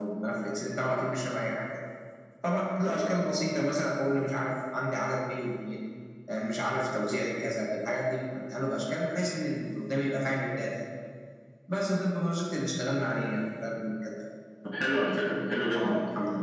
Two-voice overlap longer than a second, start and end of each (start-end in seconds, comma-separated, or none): none